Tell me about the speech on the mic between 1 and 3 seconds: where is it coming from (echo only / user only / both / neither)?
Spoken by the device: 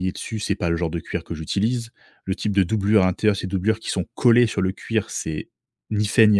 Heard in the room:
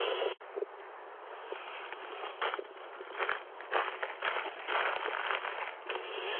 neither